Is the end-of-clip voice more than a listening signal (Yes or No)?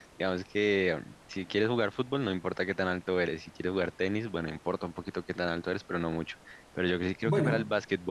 No